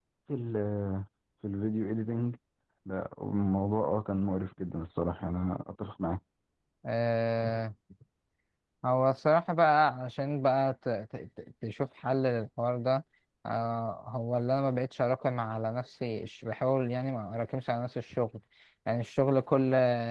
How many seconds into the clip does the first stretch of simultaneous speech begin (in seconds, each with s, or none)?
none